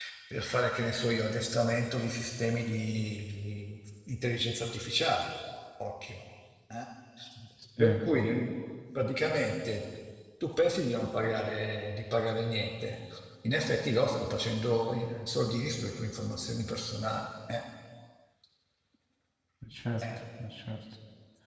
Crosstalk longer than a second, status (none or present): none